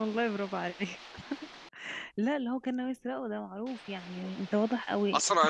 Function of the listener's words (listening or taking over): taking over